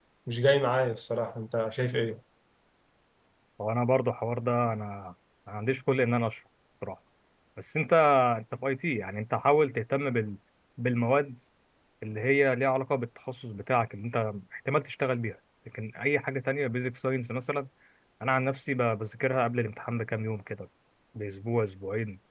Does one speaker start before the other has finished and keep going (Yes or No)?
No